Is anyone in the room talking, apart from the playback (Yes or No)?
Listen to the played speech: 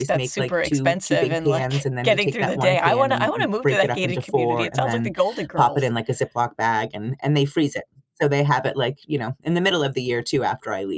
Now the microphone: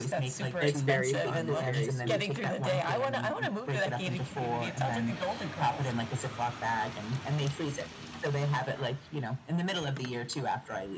Yes